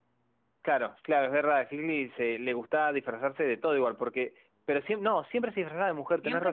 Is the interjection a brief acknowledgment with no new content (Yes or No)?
No